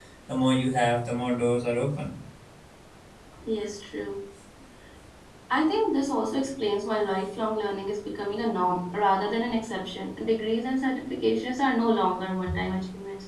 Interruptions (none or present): none